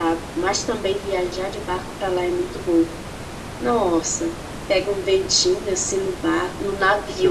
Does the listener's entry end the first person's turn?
Yes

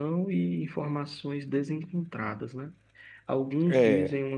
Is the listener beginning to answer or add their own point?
No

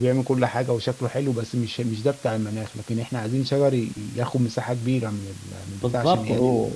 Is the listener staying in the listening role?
No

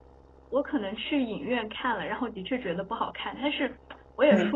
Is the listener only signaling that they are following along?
Yes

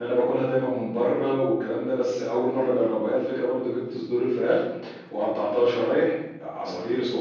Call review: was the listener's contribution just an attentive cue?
Yes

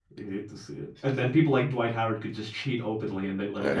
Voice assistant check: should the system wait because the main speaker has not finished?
No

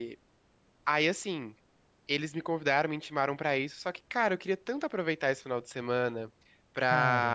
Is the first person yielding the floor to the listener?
No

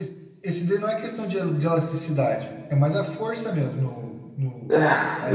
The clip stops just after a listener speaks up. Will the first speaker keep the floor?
No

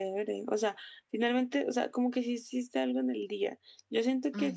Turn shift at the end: No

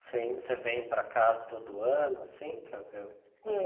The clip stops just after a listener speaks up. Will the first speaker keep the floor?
No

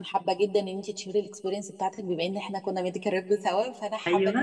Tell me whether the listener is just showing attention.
Yes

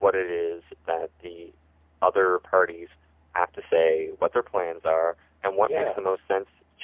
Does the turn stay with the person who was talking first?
Yes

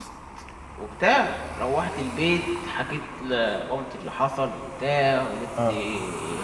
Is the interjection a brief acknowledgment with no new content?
Yes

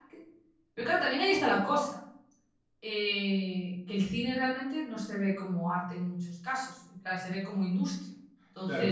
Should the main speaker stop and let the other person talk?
Yes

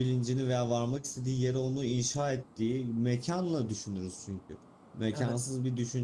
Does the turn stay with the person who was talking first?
Yes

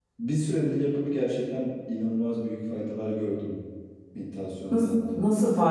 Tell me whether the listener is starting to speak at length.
Yes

